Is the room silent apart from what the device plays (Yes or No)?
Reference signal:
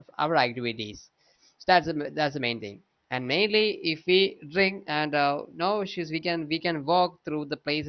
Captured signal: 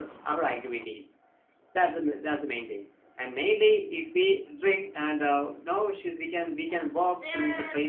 No